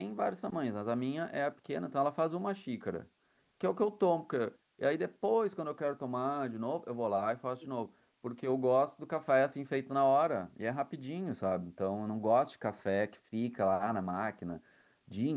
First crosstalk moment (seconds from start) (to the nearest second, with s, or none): none